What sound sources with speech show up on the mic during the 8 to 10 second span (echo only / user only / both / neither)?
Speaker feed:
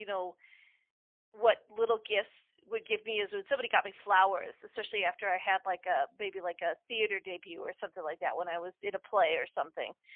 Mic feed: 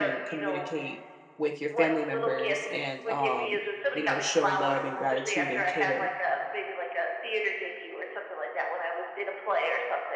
echo only